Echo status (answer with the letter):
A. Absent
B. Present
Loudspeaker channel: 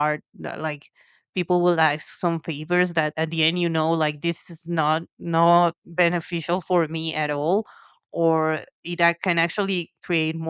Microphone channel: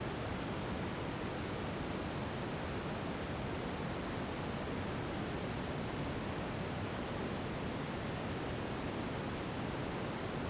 A